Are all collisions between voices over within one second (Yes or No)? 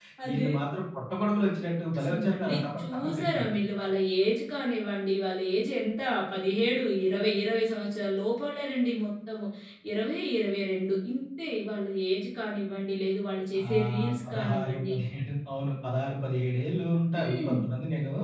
No